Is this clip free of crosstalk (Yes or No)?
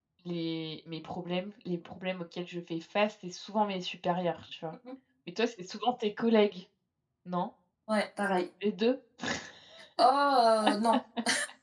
Yes